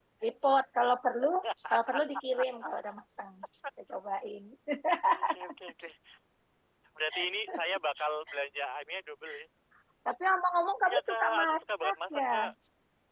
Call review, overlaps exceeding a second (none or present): present